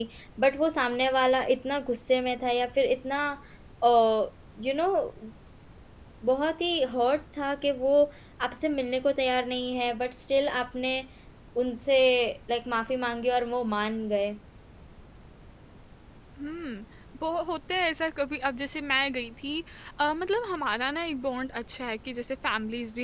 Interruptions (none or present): none